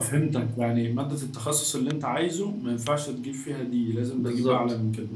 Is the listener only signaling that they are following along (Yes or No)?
No